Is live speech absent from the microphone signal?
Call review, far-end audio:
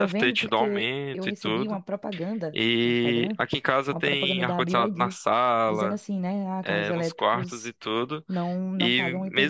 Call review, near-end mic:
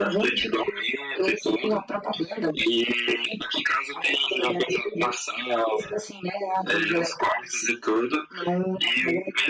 Yes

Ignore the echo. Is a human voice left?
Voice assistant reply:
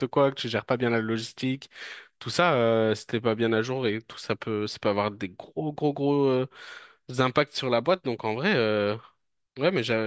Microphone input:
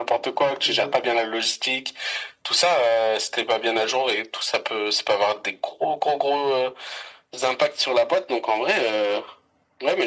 Yes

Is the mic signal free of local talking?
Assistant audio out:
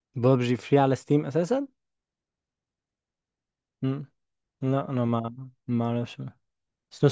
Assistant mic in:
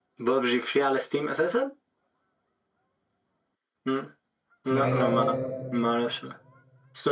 No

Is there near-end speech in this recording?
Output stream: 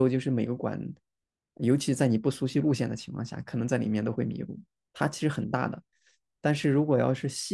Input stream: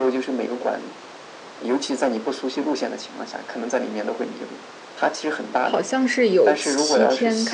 Yes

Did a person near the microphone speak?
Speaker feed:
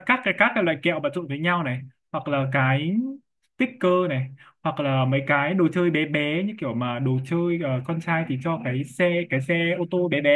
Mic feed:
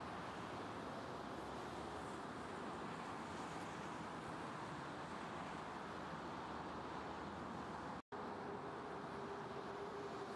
No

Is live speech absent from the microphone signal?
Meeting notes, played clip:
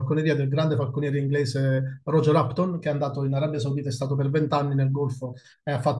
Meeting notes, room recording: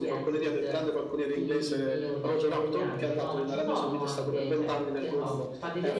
No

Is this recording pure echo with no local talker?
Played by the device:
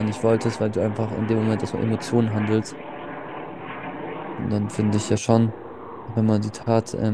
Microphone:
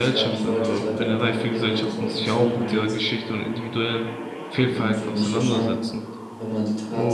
No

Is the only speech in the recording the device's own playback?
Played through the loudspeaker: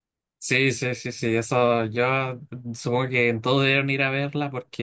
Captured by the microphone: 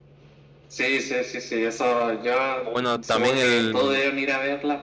No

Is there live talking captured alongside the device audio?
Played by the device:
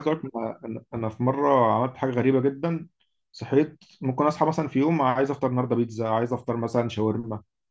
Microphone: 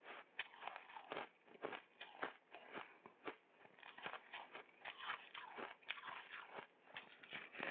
No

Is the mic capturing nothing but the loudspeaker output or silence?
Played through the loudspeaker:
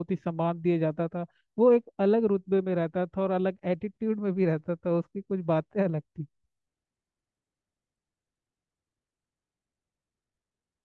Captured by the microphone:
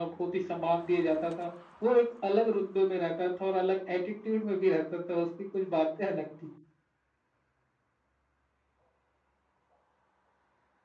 Yes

